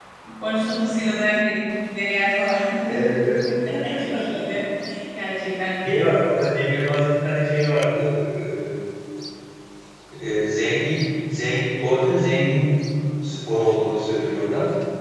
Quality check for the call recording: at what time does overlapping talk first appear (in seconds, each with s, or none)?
none